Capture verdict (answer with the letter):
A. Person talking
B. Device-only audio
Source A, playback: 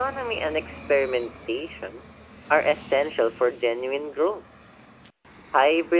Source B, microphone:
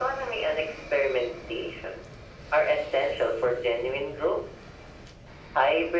B